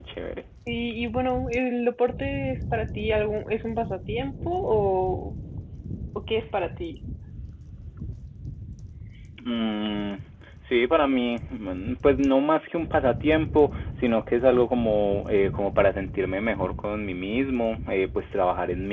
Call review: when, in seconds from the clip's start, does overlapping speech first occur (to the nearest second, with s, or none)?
none